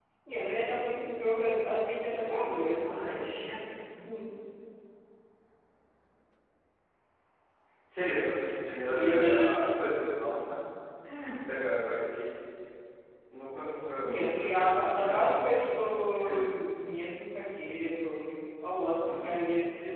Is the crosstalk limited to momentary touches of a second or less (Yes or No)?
No